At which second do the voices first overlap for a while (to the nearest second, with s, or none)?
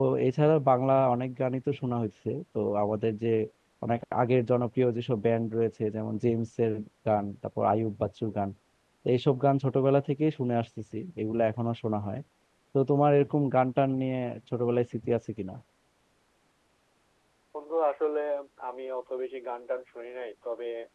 none